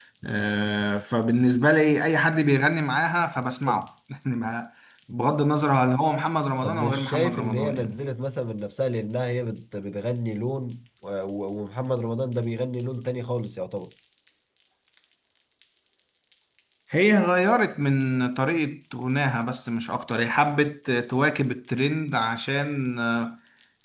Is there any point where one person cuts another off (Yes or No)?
Yes